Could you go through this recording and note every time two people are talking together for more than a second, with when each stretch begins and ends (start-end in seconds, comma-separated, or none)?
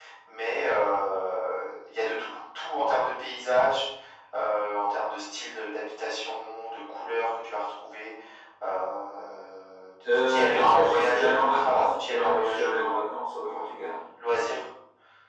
10.3-13.0